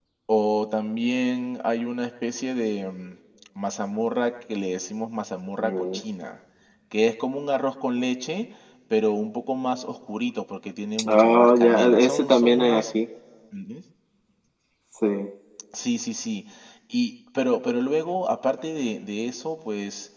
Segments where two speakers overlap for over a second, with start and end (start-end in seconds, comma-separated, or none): 11.1-12.9